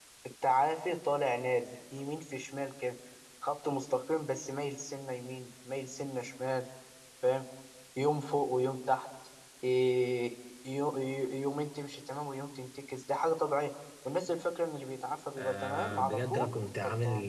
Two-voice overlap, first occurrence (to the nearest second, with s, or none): 15 s